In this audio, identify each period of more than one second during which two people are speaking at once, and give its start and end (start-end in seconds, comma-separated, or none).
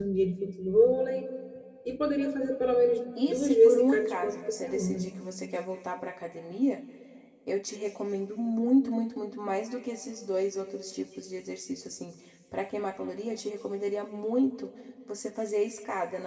3.3-5.1